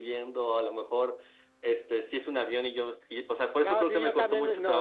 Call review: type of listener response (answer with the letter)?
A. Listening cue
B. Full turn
B